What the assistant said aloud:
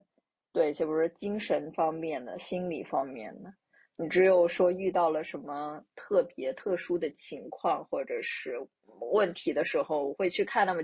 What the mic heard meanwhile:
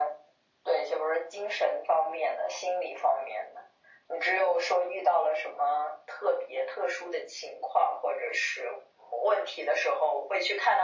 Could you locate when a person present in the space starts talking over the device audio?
none

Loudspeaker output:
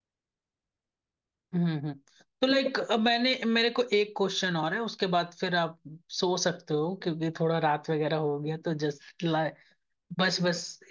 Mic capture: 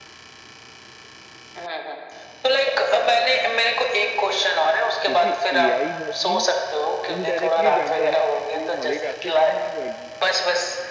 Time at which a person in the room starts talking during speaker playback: 5.0 s

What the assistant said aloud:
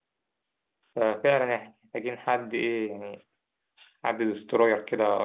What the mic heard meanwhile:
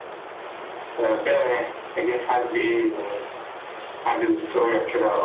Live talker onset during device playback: none

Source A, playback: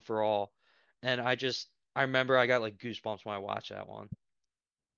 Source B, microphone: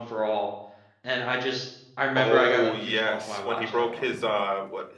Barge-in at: 2.1 s

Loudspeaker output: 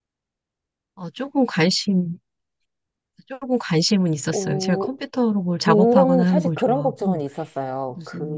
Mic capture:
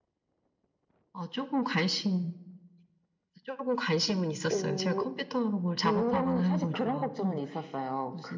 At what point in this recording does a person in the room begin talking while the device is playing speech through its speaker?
none

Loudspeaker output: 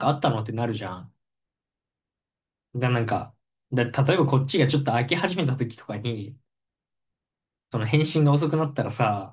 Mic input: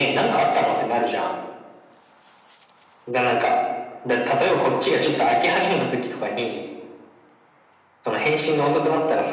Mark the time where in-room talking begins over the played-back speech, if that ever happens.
none

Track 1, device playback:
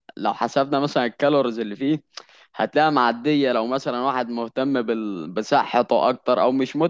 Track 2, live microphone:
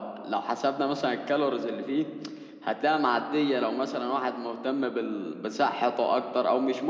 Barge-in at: none

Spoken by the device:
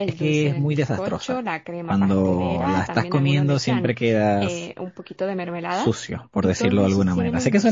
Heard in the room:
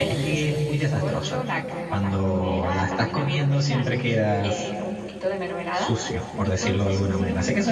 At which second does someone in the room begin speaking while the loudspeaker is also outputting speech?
none

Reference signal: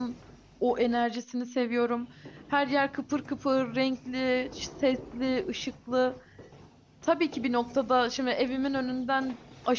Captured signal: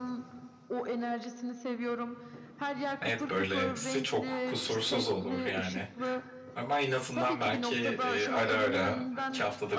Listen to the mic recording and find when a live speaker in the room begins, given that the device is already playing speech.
3.0 s

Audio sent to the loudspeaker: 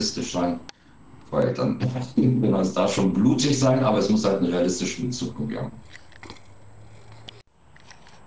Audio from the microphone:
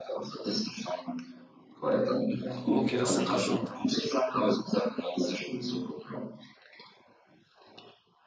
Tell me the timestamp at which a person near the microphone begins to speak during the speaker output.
2.6 s

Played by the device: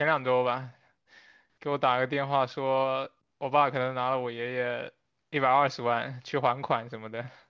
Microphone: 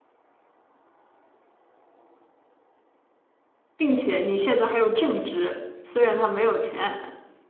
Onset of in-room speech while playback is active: 3.8 s

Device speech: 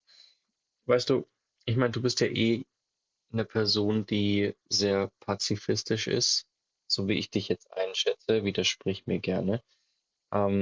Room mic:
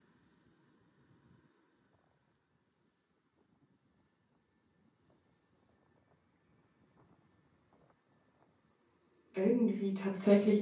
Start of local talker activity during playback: 9.4 s

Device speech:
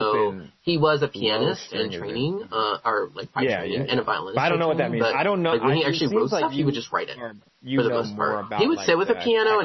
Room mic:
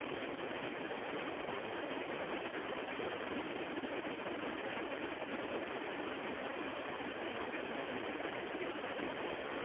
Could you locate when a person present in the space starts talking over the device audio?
none

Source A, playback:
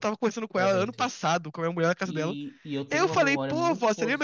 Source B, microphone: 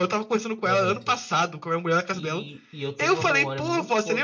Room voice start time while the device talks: none

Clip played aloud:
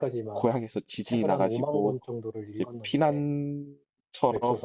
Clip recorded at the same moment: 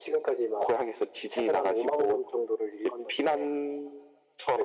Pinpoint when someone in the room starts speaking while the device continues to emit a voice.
none

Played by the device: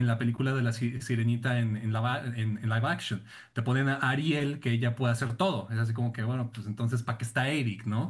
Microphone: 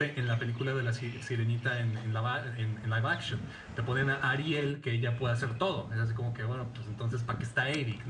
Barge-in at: none

